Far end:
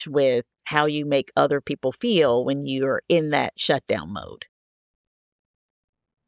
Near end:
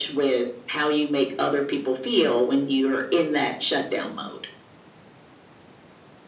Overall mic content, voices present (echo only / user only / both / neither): echo only